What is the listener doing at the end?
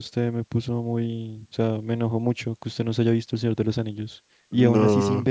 listening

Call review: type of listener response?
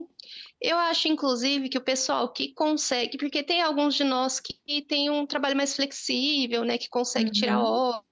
listening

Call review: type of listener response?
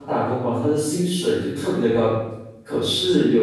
listening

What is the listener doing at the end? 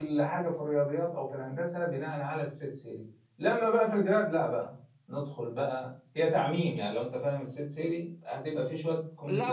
taking over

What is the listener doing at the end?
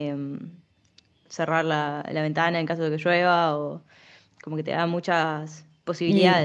taking over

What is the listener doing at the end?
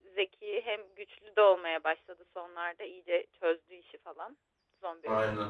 listening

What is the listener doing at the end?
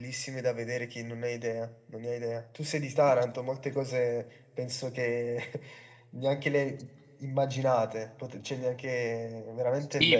taking over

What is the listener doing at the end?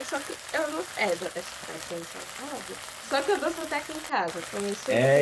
taking over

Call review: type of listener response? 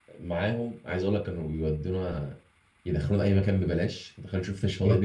listening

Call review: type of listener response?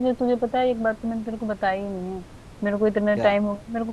listening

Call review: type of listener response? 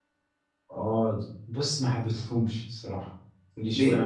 listening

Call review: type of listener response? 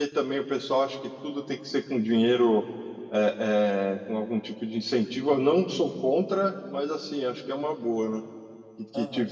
taking over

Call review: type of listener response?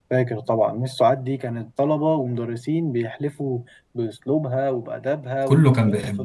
taking over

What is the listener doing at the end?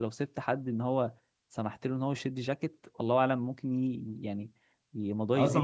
taking over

